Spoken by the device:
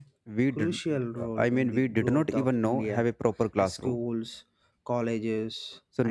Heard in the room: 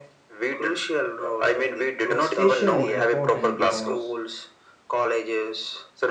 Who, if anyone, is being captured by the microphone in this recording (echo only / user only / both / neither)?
both